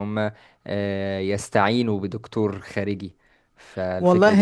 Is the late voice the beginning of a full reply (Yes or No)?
Yes